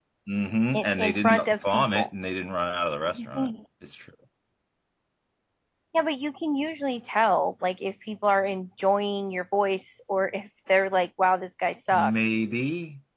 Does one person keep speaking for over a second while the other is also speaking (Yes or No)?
Yes